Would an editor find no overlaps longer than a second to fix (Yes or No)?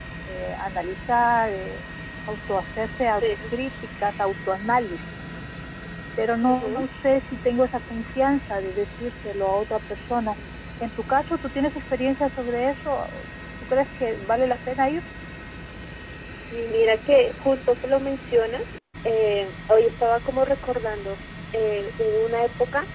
Yes